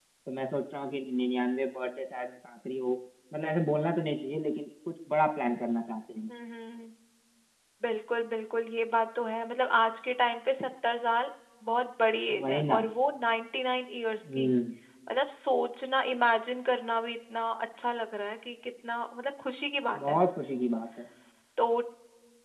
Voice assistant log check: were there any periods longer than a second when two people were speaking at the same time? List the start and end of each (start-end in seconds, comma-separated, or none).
none